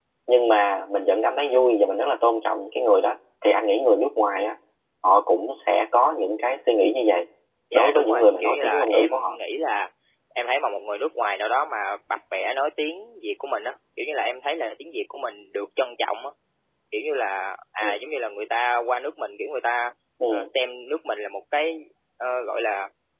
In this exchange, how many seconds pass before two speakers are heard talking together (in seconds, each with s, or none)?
7.7 s